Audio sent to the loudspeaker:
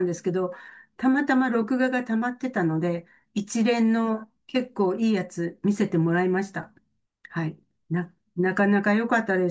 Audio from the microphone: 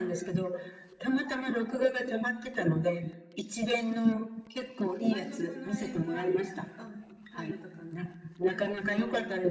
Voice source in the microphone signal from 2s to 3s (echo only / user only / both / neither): echo only